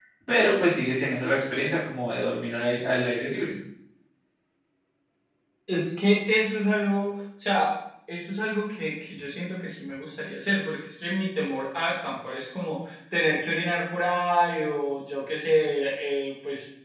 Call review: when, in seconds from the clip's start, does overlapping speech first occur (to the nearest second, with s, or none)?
none